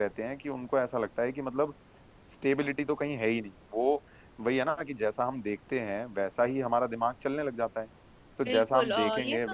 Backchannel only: No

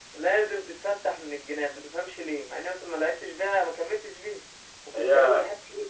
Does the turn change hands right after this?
No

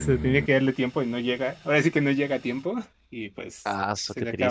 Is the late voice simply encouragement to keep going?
No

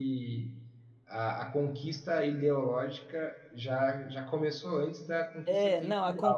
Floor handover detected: Yes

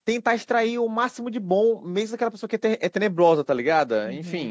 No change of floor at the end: No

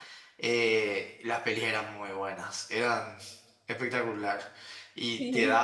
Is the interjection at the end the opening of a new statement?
No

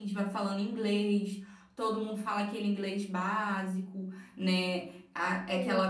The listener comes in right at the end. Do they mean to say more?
No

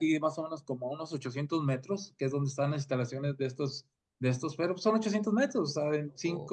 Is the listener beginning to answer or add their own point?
No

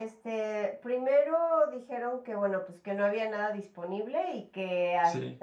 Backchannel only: Yes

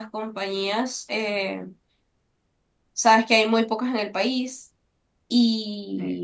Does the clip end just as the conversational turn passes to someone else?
No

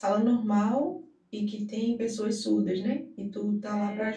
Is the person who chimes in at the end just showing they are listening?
No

